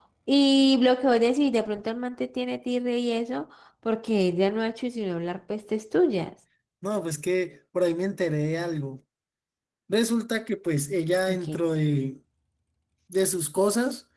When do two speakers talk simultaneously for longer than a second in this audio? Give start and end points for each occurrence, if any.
none

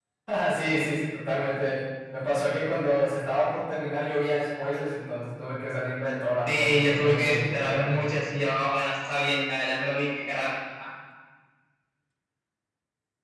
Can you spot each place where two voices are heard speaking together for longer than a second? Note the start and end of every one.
6.5-7.9

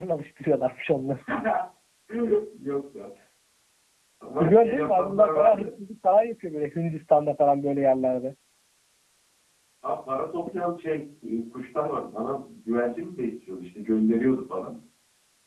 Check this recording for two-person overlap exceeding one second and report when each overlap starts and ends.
4.4-5.7

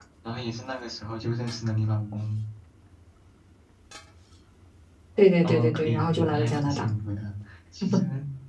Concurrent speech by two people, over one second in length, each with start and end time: 5.4-6.8

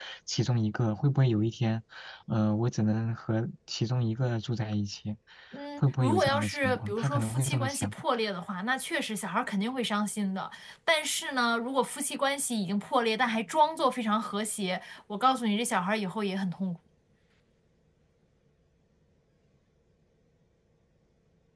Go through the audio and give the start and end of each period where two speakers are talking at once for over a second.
5.8-7.9

